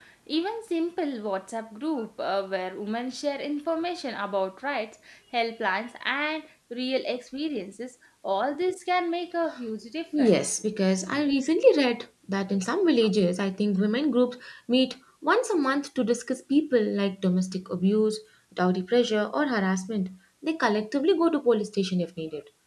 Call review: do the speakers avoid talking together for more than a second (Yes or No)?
Yes